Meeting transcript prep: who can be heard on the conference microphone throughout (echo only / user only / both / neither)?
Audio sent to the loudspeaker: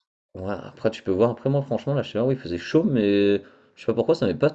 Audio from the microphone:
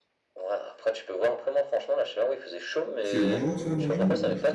both